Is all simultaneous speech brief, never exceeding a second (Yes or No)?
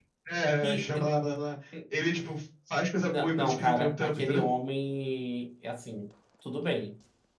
No